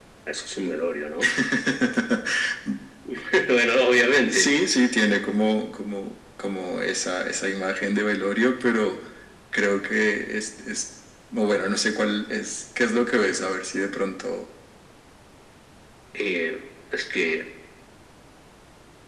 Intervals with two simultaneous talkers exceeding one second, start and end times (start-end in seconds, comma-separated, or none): none